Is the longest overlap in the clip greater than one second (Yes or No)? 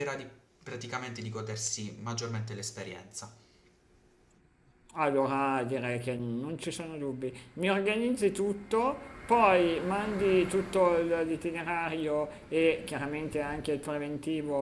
No